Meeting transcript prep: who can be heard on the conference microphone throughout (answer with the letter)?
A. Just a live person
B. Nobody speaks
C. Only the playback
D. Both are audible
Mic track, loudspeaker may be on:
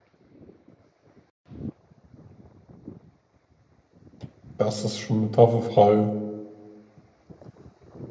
A